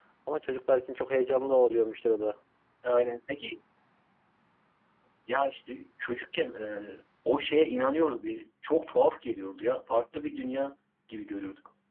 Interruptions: none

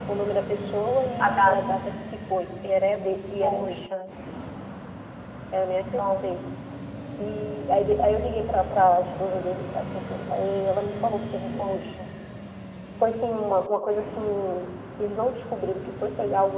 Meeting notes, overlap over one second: none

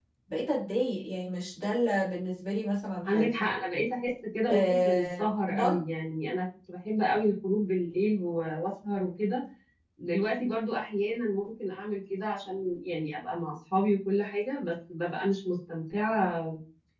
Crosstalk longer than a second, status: present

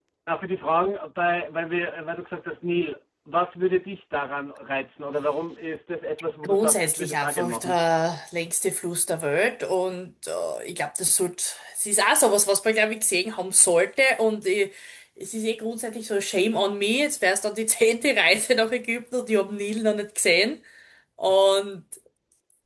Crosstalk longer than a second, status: present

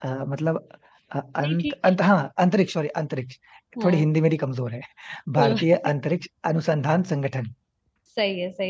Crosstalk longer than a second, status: none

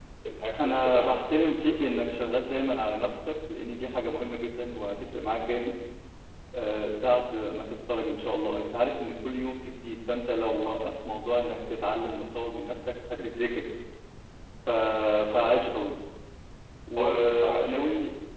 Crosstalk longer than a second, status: present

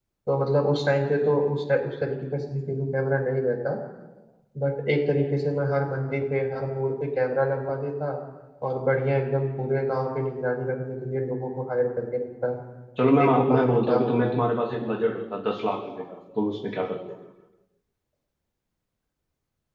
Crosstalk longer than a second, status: present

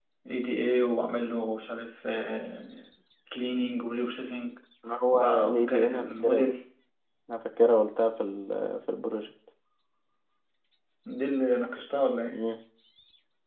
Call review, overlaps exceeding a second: present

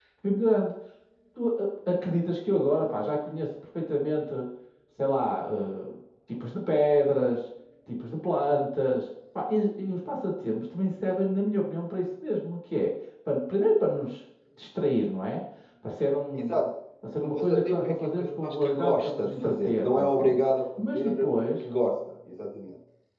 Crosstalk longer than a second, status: present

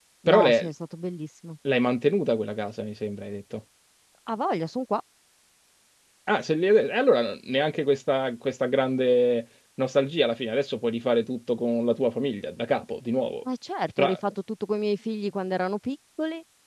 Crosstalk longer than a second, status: none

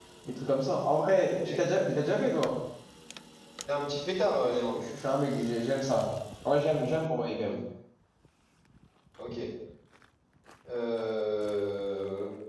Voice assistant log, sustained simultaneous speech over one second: none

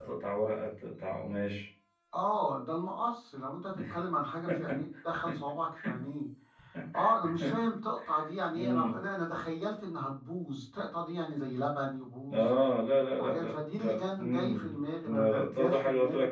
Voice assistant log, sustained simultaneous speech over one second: present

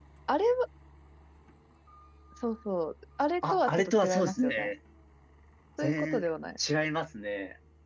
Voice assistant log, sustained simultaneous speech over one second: present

